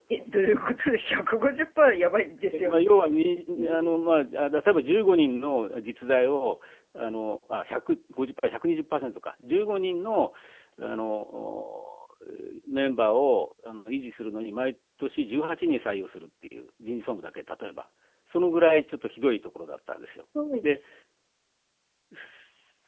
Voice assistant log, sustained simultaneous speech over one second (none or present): none